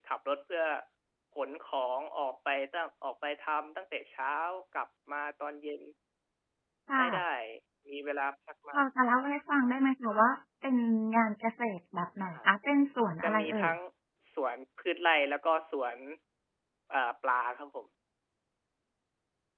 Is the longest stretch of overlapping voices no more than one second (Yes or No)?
Yes